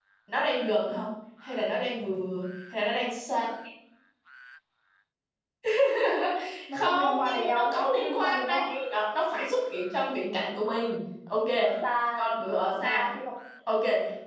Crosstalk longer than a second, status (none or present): present